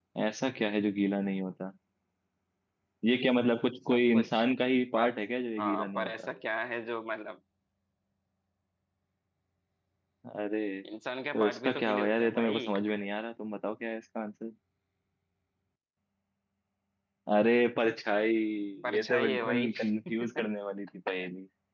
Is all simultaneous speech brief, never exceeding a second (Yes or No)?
No